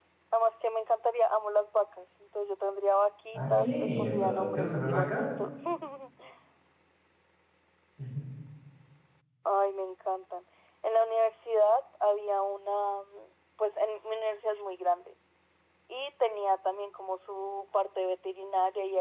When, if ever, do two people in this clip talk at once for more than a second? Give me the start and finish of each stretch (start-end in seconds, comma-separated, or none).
3.3-5.3